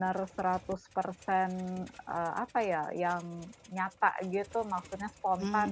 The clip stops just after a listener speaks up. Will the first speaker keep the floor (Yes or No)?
No